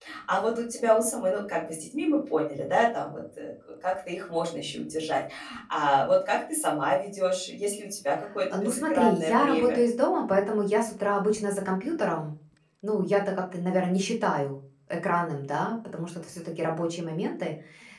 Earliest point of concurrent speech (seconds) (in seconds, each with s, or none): 8.5 s